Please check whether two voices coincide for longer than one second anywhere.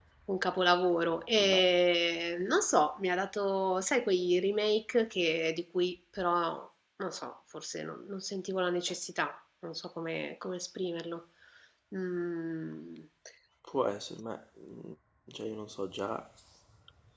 No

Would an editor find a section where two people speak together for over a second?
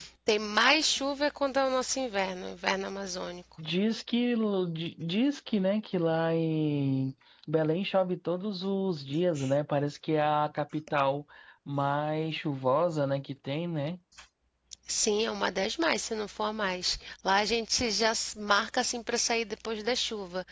No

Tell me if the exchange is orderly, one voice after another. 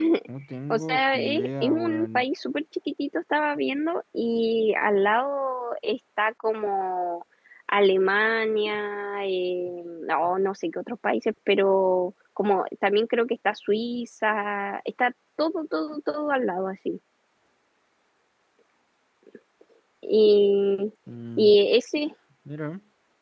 No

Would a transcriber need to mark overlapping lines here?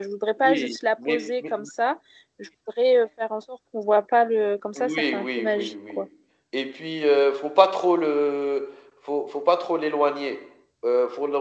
Yes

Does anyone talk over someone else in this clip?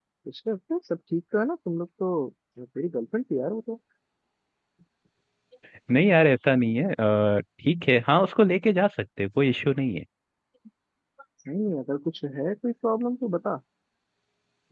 No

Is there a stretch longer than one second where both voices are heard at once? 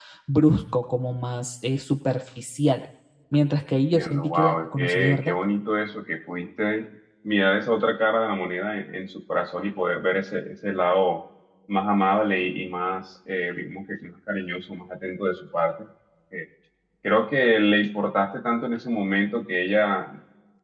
Yes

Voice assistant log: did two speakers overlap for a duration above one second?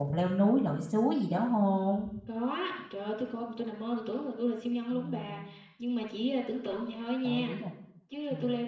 No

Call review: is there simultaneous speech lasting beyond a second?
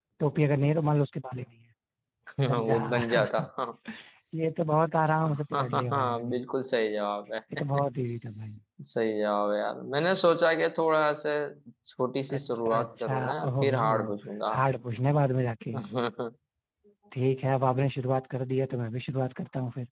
Yes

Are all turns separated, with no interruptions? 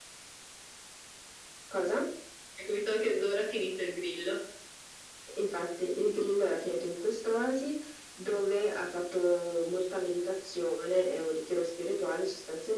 Yes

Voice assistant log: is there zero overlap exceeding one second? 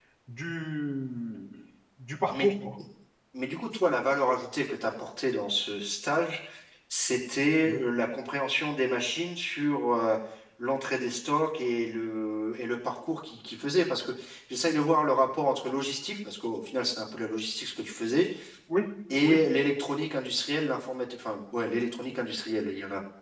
Yes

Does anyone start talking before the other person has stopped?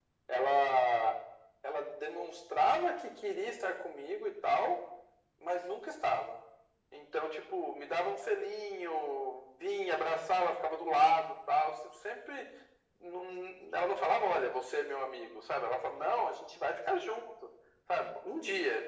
No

